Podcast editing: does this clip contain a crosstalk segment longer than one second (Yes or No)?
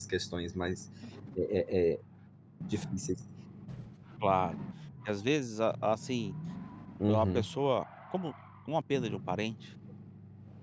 No